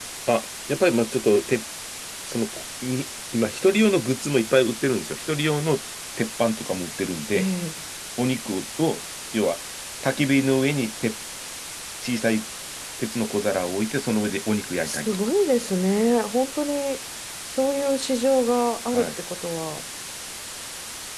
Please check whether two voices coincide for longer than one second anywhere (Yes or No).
No